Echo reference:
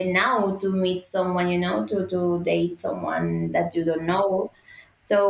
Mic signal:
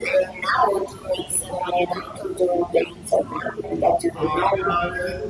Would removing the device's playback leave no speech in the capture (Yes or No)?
No